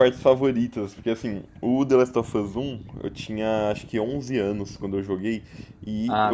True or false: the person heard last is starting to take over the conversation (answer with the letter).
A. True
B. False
B